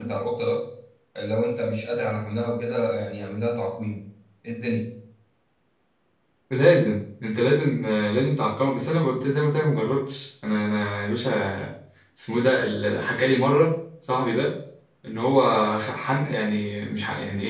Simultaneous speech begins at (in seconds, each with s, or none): none